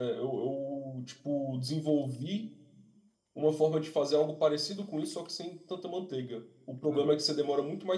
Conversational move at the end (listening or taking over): listening